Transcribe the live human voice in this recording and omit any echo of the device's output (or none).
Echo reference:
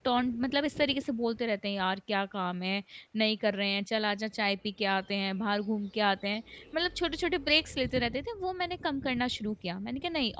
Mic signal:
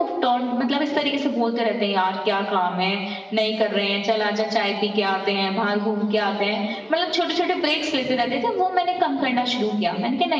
none